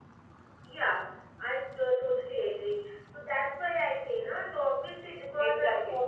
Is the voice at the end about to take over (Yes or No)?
No